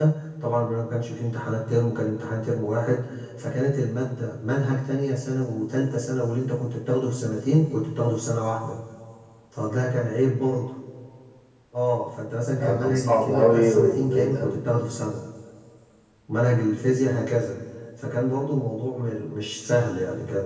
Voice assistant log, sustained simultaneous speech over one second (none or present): present